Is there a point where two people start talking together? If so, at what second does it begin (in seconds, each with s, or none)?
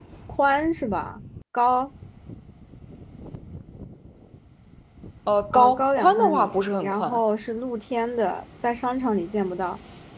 5.5 s